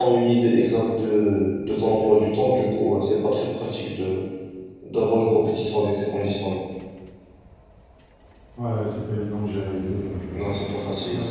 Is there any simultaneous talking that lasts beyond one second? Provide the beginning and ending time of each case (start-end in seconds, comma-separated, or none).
none